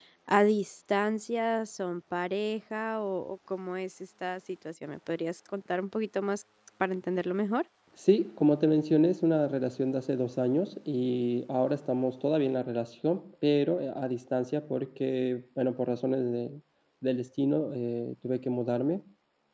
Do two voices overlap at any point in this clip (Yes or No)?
No